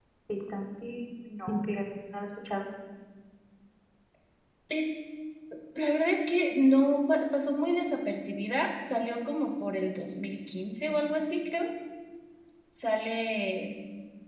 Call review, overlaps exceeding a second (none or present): none